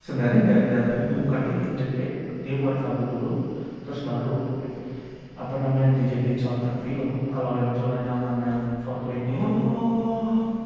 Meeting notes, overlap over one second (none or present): none